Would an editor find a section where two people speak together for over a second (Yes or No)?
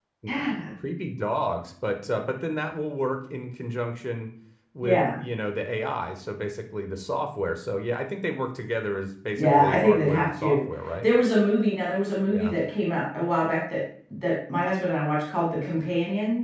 Yes